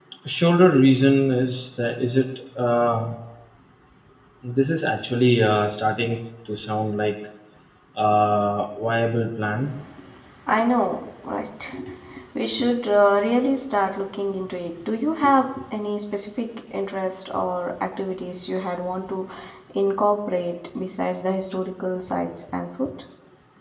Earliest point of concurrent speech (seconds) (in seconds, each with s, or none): none